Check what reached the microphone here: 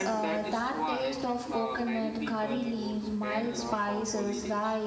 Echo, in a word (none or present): present